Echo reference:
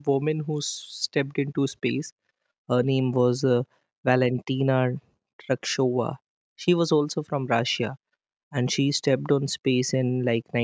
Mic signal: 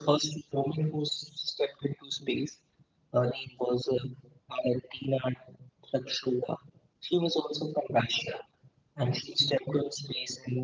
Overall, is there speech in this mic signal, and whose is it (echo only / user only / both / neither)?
echo only